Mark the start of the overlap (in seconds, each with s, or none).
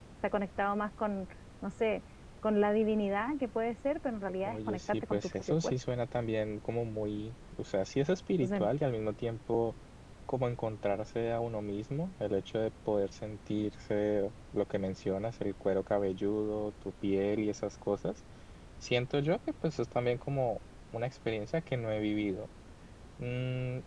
4.5 s